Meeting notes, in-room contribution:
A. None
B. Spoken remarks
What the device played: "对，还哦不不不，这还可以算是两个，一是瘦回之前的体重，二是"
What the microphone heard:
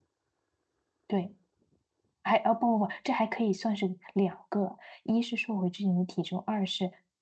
A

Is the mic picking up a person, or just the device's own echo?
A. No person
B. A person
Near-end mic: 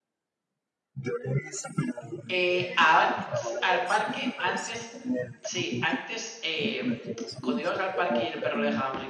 B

